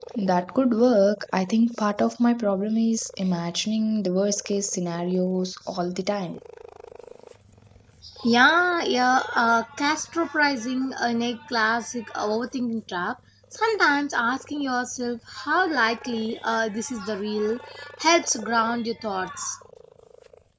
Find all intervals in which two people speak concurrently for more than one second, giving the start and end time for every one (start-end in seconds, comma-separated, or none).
none